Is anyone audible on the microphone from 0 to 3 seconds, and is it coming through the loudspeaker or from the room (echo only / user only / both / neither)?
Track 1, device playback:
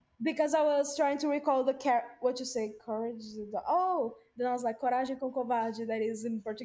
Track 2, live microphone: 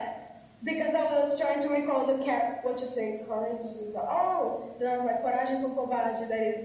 echo only